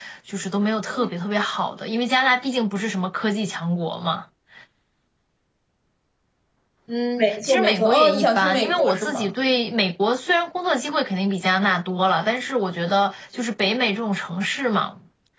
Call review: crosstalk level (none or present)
present